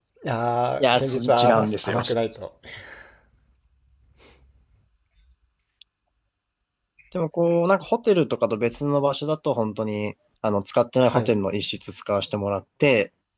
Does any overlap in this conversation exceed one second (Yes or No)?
Yes